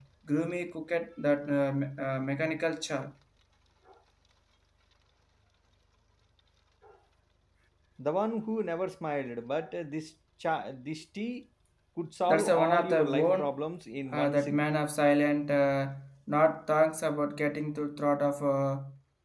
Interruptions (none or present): present